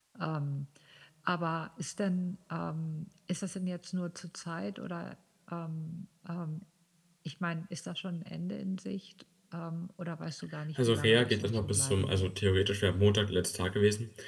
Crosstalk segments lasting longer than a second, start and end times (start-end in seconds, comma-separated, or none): 10.8-12.3